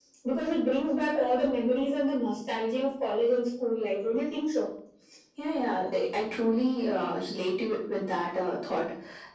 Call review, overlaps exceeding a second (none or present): none